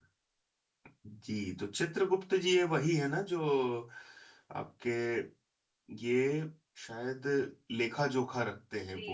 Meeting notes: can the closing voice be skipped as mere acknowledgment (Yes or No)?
No